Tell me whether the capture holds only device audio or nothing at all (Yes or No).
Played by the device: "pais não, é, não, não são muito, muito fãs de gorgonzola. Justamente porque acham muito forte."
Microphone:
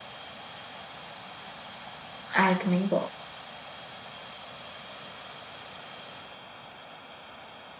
No